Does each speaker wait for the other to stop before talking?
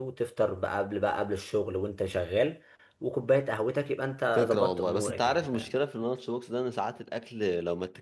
No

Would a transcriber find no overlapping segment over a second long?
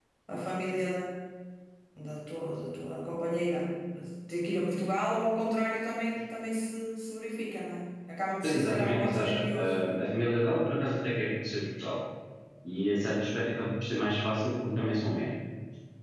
No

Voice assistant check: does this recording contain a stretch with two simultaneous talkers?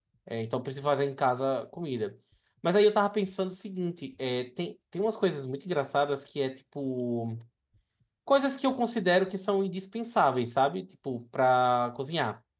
No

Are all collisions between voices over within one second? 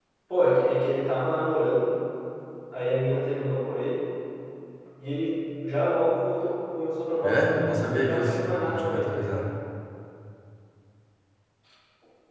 No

